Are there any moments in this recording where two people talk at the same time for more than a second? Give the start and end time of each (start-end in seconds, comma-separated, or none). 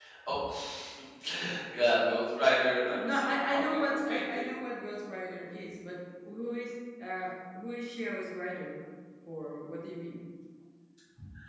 3.0-4.5